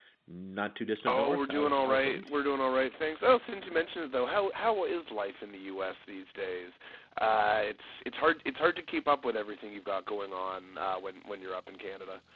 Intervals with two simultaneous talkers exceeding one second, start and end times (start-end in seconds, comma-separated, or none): 1.1-2.4